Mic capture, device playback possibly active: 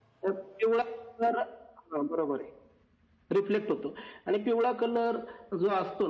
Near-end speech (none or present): none